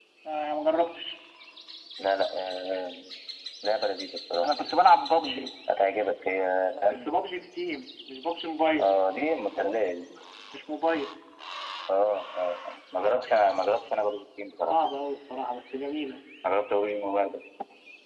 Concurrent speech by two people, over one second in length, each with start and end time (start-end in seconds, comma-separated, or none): none